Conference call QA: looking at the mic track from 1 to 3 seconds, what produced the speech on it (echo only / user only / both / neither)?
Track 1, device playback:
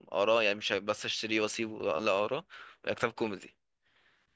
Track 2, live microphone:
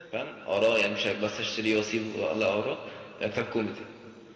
echo only